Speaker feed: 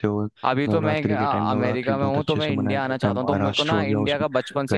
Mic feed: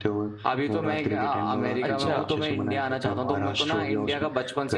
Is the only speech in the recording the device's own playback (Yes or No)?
No